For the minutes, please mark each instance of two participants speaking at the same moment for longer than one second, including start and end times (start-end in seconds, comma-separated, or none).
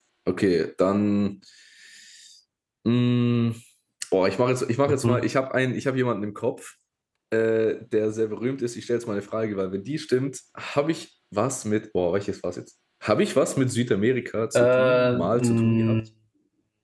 14.6-16.0